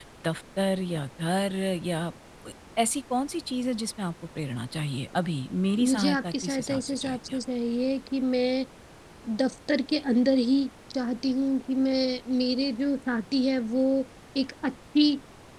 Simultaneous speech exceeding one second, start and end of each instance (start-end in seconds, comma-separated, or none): 5.8-7.4